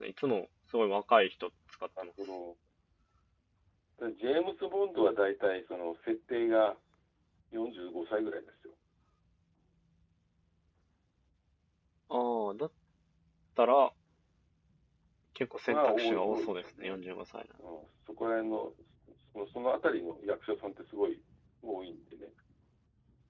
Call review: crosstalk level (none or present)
present